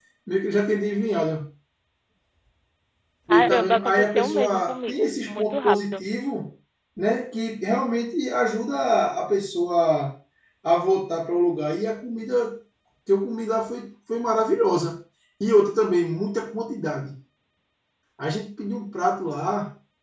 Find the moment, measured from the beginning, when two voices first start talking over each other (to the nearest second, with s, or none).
3 s